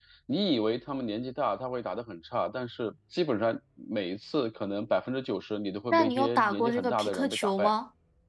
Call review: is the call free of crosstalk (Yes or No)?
No